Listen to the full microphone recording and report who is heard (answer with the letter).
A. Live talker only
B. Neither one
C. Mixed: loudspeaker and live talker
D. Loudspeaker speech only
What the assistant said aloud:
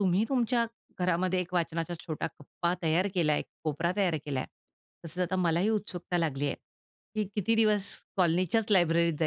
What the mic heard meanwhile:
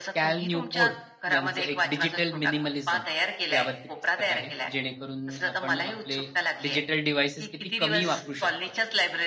C